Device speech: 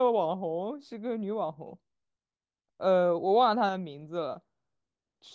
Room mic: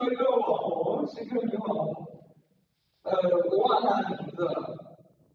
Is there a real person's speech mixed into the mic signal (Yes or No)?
No